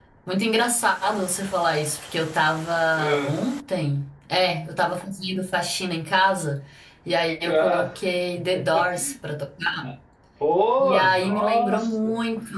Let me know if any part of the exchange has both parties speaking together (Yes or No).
Yes